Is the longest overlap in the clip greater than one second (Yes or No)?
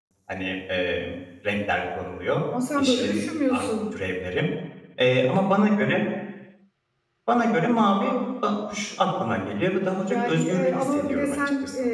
Yes